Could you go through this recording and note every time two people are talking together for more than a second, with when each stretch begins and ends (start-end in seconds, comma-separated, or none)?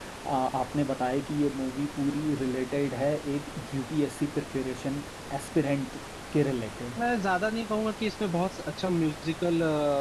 none